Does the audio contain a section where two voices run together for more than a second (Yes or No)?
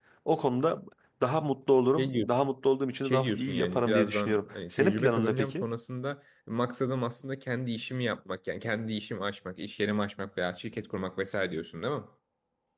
Yes